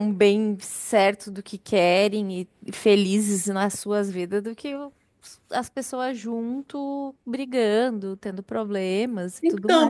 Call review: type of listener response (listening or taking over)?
taking over